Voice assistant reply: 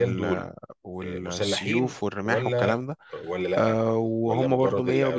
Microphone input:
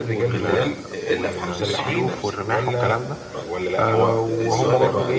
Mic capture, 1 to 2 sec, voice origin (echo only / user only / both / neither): both